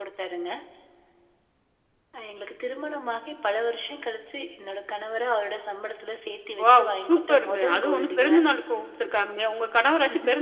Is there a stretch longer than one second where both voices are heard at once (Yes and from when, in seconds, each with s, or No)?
Yes, from 6.6 s